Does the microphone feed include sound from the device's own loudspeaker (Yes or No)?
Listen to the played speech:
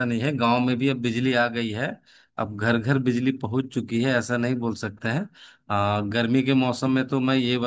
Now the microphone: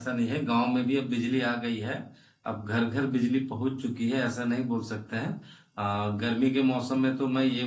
Yes